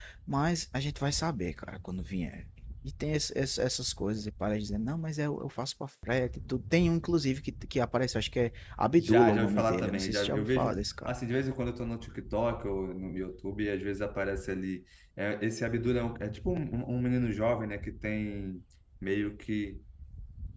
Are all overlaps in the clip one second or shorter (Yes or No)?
No